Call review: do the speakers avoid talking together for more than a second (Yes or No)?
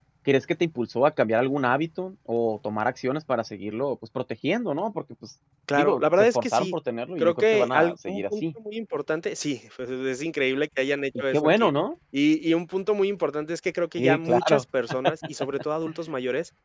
No